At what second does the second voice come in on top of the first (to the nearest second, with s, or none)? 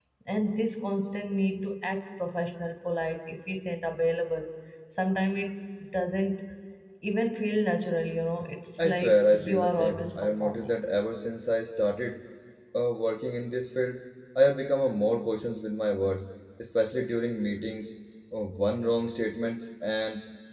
9 s